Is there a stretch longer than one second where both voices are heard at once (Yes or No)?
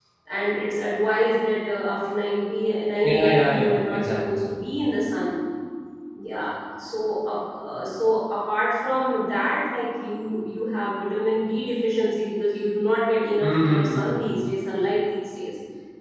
Yes